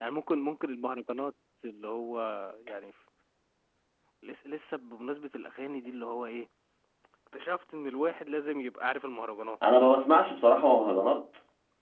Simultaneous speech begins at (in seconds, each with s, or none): none